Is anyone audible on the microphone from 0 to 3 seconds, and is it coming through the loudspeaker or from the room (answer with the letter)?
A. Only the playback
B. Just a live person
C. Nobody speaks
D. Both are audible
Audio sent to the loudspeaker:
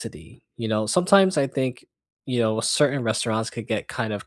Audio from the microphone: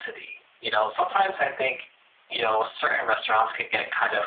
A